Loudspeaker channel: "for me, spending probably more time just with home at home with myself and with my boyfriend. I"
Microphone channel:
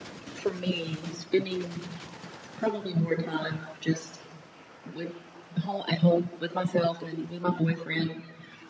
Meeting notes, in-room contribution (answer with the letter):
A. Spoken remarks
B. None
B